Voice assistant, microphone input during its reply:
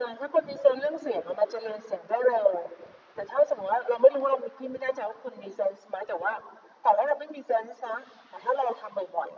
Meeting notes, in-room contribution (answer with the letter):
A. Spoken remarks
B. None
B